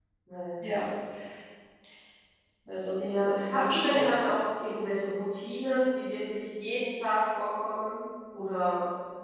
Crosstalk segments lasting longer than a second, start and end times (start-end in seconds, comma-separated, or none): 3.0-4.2